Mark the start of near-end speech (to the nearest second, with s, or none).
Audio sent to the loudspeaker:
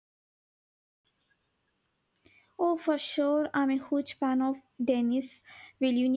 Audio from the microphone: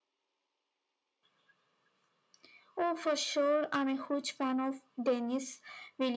none